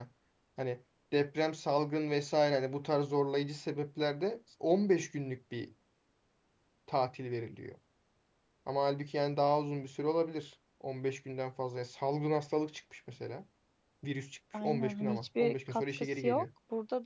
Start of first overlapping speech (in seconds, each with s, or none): 14.6 s